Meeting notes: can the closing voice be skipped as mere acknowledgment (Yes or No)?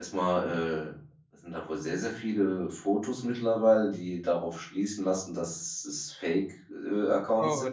No